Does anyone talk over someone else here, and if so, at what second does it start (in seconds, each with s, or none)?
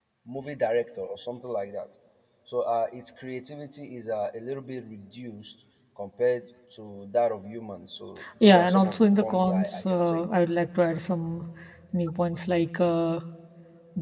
8.2 s